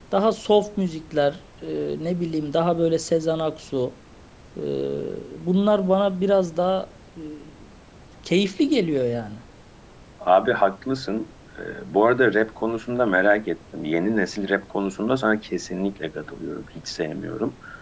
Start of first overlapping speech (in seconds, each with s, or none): none